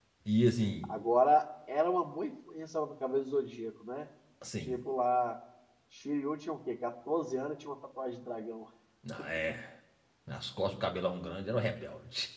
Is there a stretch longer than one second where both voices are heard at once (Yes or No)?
No